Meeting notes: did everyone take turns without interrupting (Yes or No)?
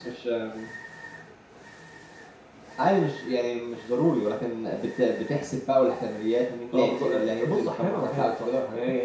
No